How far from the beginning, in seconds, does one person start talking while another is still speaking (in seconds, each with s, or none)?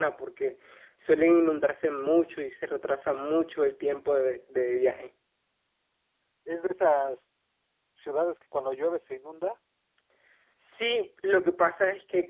none